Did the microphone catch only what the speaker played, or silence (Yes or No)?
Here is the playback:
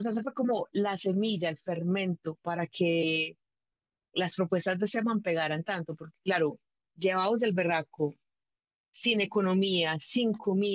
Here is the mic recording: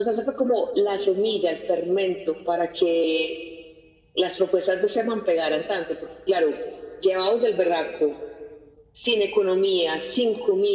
Yes